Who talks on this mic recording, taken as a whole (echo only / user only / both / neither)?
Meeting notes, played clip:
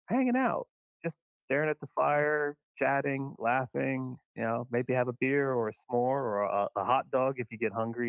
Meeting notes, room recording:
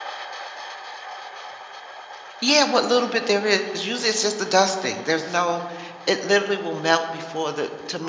user only